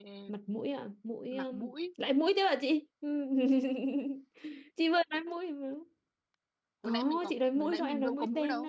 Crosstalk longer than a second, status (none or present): present